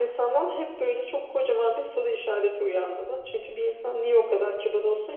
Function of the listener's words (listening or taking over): listening